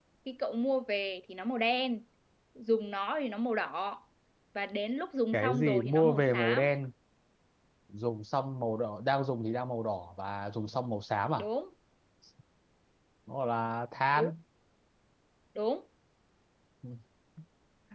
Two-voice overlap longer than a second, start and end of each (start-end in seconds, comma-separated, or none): 5.3-6.8